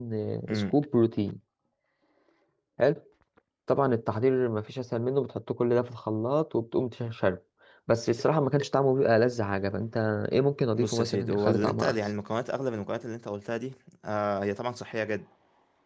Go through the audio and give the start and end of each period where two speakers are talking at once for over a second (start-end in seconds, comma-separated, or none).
10.8-12.0